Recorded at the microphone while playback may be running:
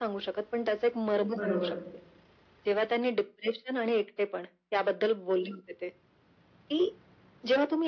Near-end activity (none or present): present